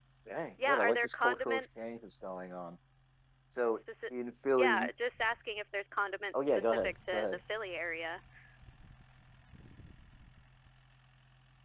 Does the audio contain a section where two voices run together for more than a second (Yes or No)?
Yes